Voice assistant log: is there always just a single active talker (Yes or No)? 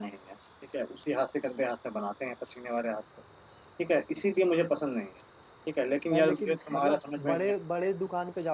No